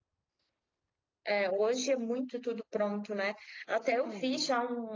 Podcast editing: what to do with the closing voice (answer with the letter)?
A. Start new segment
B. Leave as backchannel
B